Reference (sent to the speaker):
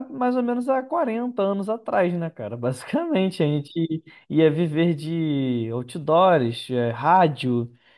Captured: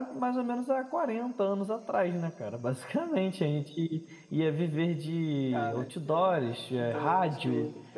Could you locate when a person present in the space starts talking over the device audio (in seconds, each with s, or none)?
5.5 s